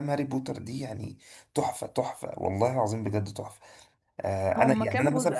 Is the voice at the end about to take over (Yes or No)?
Yes